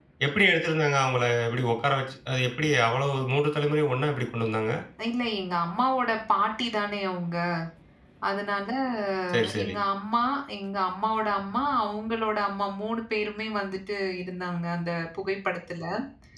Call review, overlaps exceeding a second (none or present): none